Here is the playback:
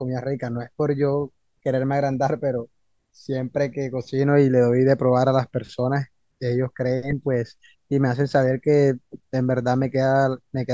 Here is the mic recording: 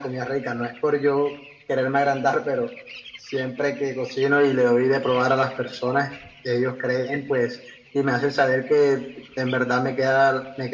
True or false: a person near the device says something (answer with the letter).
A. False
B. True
A